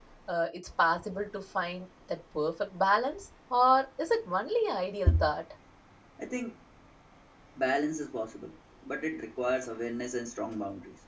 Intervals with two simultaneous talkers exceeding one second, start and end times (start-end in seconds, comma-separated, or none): none